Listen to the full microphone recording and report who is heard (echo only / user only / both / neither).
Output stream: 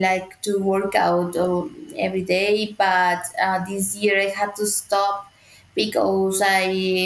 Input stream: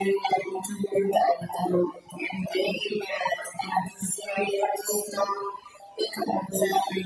echo only